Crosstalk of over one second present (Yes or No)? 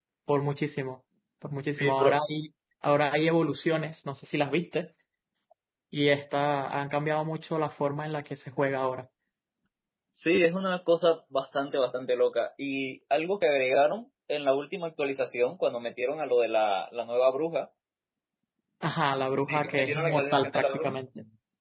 Yes